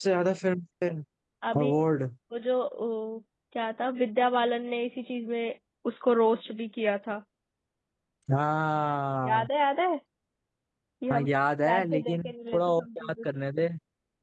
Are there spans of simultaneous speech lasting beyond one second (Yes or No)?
Yes